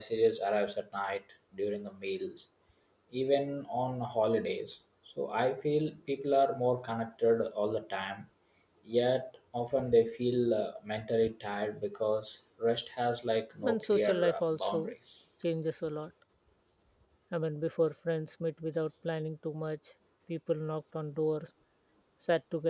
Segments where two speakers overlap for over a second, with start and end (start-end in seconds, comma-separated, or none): 13.6-14.9